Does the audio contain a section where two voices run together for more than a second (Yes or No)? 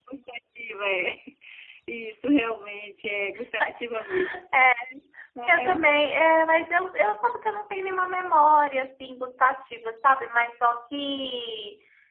No